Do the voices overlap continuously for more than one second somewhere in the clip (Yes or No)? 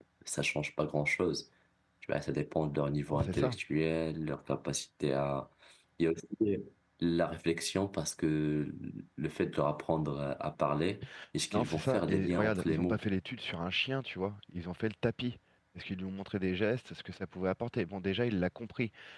Yes